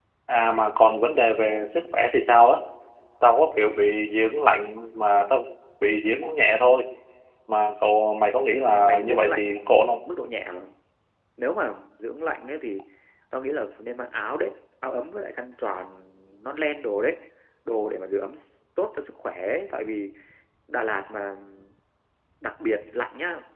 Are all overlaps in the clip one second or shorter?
No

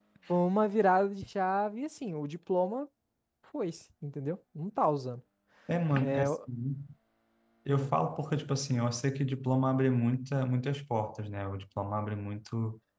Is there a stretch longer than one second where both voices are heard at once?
No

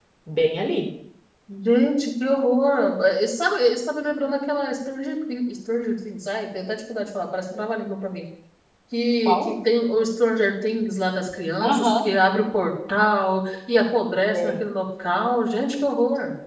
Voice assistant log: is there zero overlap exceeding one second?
Yes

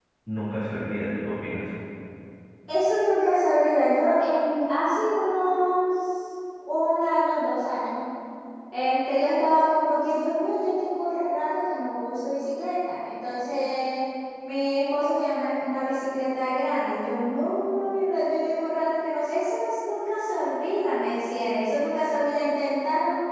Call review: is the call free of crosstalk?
Yes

